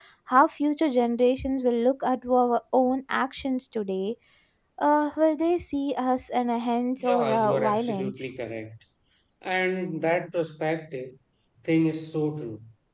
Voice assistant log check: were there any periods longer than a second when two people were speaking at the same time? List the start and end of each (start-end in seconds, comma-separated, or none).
7.0-8.3